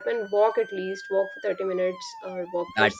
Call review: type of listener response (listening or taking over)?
taking over